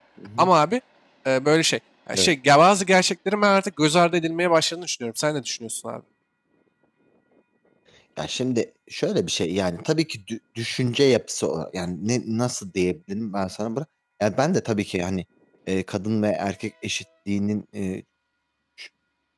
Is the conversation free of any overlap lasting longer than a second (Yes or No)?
Yes